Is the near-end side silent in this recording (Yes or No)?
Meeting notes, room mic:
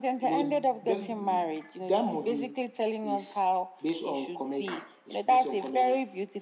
Yes